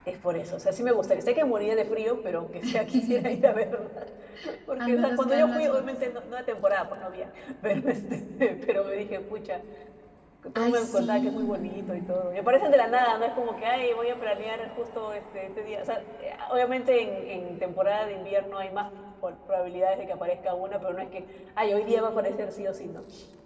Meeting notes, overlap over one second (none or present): present